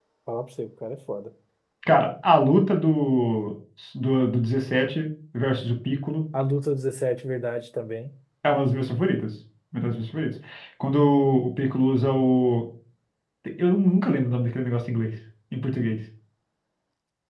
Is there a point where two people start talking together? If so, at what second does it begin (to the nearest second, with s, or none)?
none